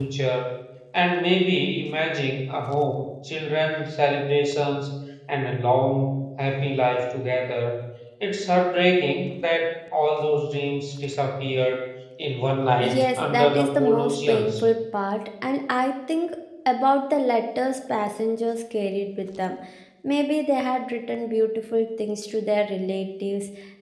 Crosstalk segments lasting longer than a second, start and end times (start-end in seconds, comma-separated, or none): 12.8-14.6